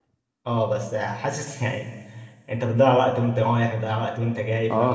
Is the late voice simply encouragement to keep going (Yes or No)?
No